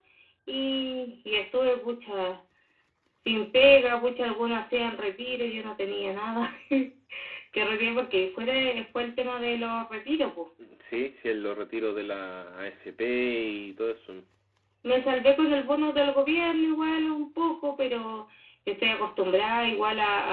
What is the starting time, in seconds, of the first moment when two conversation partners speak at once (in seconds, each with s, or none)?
none